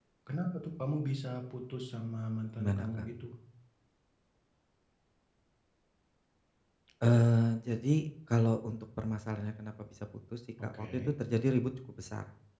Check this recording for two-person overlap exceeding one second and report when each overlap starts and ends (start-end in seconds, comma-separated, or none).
none